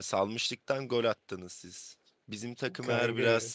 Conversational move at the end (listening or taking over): listening